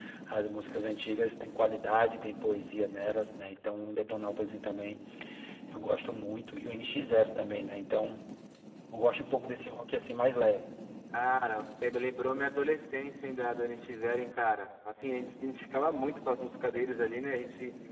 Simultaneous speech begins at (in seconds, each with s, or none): none